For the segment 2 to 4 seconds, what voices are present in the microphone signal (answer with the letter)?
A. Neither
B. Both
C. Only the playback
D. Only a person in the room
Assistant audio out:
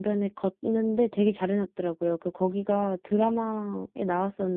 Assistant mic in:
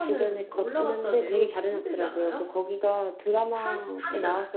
B